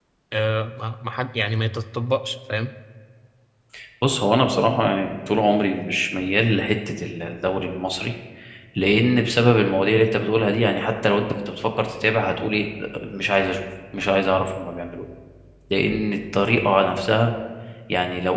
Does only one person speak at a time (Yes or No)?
Yes